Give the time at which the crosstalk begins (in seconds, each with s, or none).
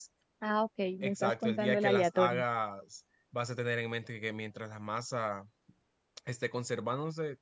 1.0 s